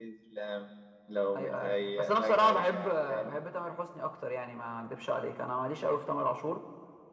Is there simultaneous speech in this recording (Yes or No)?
Yes